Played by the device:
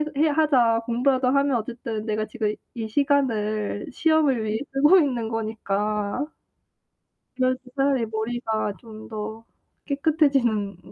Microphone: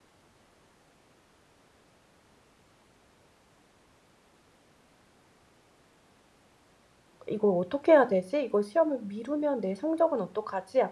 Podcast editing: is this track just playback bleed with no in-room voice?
No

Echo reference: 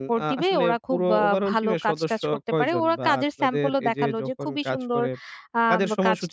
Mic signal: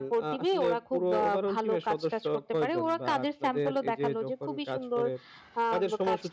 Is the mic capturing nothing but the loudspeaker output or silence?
Yes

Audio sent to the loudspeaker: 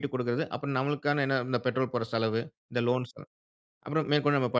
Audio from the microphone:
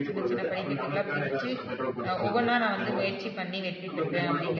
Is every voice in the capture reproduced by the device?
No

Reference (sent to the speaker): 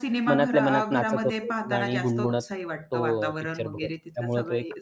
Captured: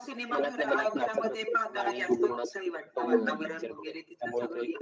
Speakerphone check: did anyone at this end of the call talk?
Yes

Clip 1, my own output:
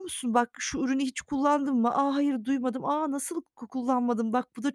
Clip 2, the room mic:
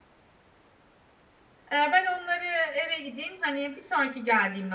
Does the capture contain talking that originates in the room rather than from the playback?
Yes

